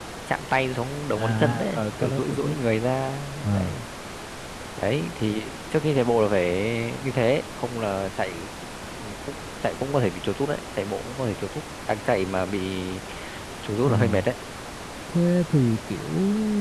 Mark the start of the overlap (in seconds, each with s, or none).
1.1 s